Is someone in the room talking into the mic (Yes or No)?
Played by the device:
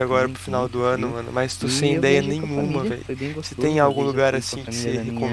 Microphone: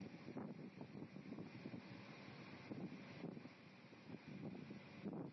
No